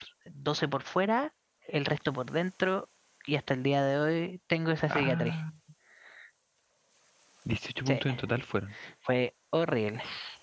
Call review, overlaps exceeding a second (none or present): none